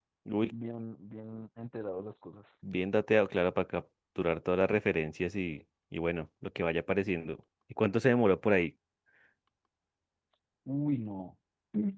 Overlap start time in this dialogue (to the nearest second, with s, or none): none